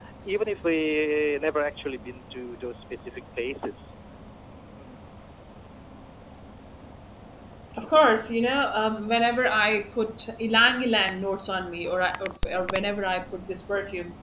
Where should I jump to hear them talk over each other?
none

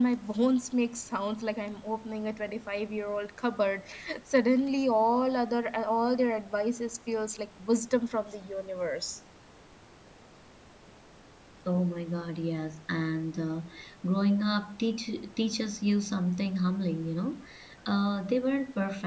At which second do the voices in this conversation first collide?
none

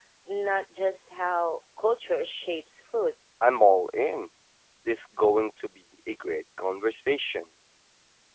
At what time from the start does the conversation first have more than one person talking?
none

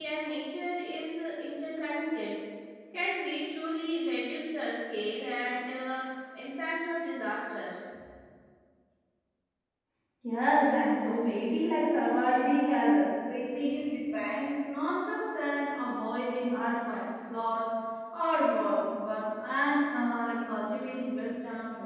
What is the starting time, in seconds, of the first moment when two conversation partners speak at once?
none

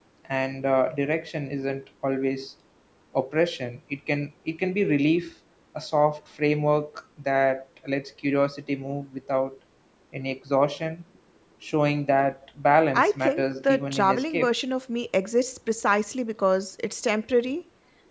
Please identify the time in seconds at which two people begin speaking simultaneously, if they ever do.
13 s

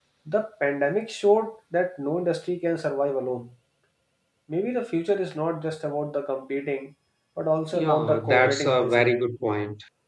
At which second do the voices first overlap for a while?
8 s

